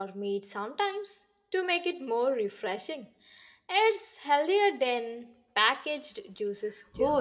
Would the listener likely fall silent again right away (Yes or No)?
No